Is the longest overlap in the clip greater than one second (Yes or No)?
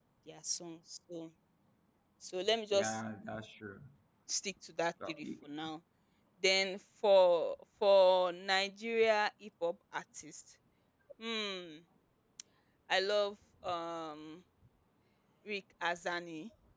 No